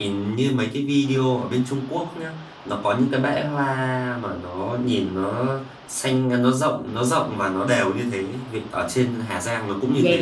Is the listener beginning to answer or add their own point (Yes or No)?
Yes